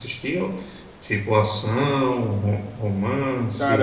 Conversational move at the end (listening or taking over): taking over